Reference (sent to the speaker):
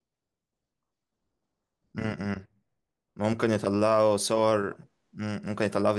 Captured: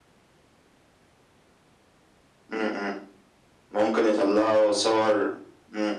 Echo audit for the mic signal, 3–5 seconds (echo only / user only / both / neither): echo only